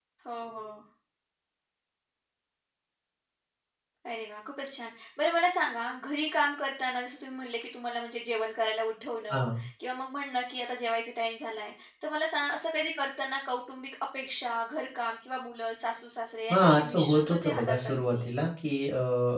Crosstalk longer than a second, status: present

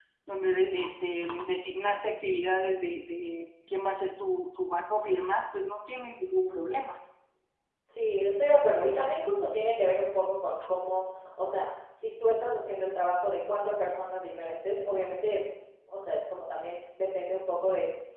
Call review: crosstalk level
none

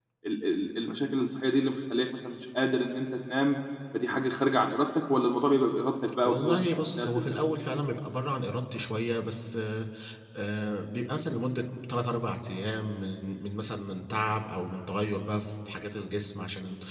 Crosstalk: present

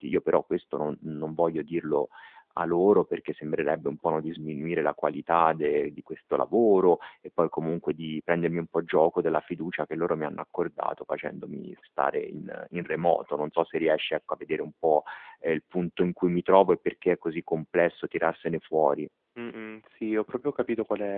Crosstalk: none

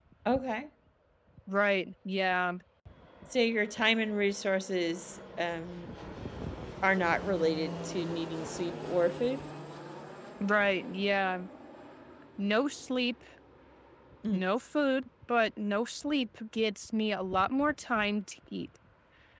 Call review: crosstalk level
none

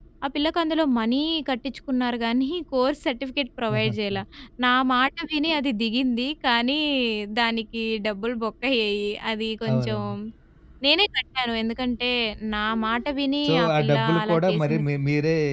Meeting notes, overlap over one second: present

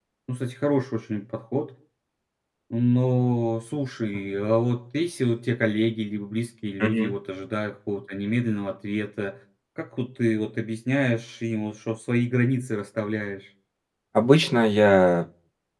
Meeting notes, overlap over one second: none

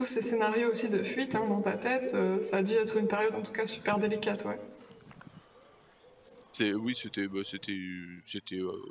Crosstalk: none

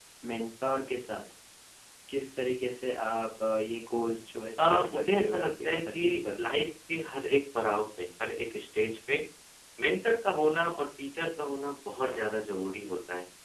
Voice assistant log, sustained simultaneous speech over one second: present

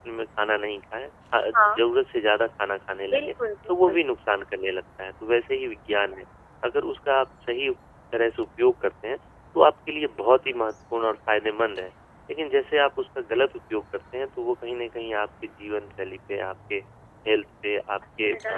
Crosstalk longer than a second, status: none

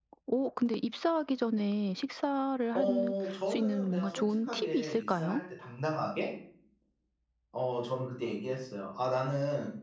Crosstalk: present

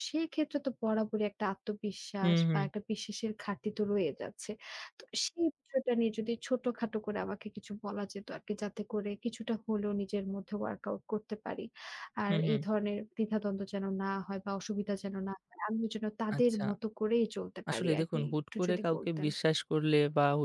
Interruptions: present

